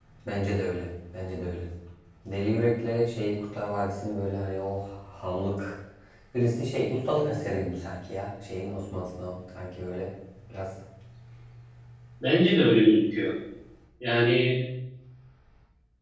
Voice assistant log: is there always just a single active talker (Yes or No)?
Yes